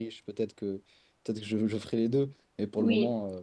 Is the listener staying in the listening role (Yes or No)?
Yes